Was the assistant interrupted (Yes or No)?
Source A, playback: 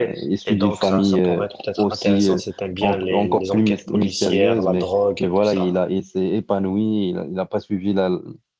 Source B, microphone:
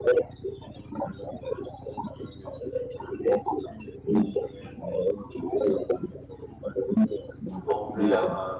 Yes